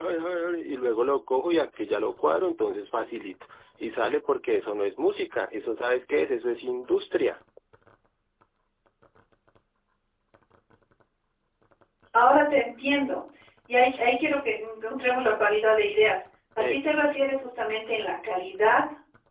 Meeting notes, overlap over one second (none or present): none